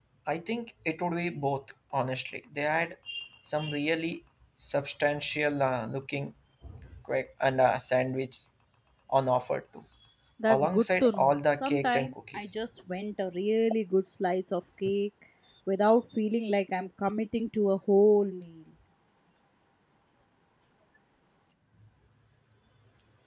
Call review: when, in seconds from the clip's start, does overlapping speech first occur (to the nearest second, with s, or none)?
10 s